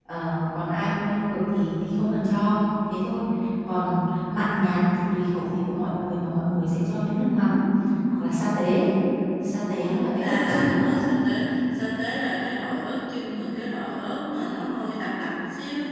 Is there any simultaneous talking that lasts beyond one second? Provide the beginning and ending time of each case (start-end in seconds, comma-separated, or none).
9.6-10.9